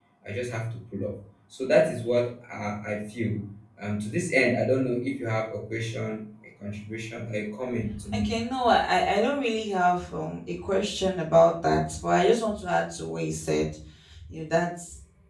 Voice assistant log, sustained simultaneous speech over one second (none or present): none